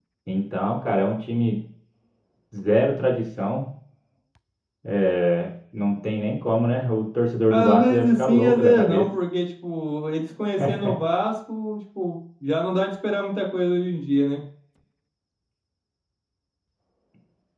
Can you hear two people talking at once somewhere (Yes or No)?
Yes